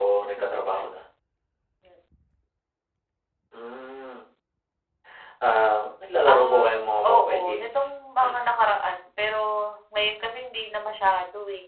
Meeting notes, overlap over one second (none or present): present